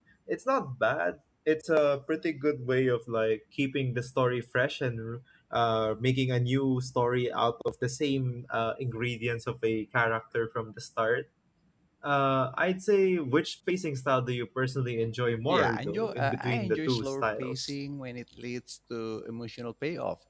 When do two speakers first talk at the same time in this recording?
15.5 s

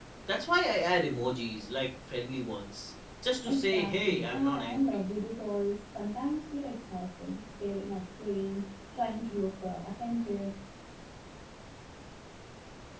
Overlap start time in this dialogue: 3.5 s

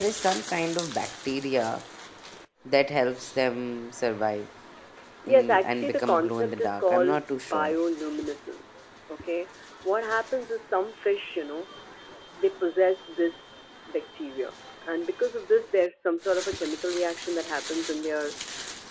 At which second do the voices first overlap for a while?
5.3 s

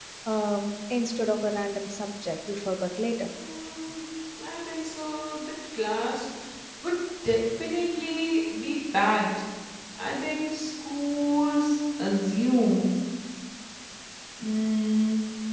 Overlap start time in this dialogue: none

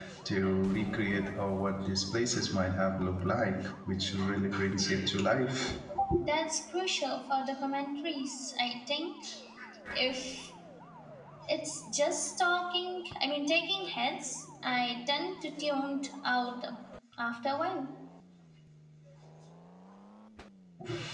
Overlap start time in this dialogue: none

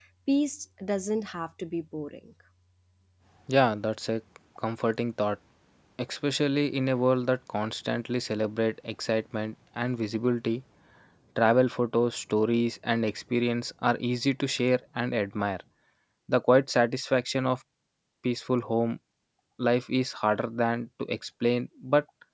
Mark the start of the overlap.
none

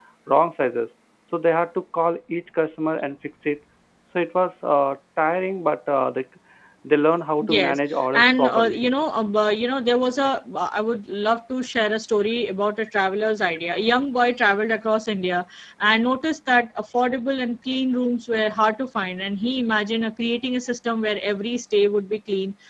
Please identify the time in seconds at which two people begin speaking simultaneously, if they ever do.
7.4 s

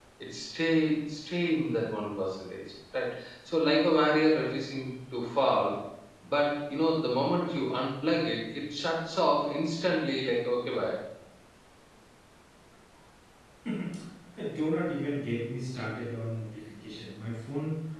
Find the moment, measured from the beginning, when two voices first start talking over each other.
none

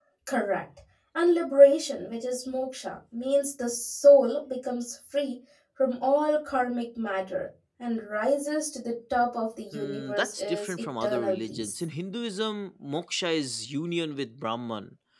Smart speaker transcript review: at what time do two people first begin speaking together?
9.7 s

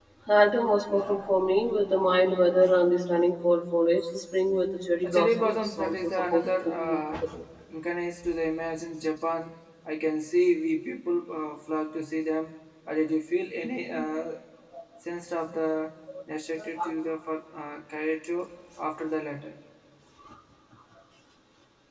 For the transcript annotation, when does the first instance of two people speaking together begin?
5.0 s

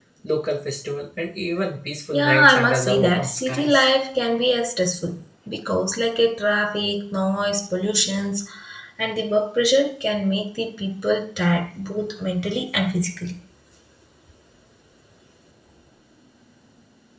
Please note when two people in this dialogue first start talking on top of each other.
2.1 s

